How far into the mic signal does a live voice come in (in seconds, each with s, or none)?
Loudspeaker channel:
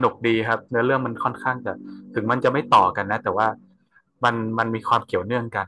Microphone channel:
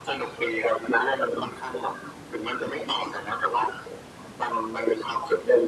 none